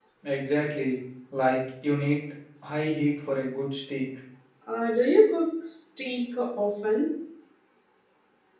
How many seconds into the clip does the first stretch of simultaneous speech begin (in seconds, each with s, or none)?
none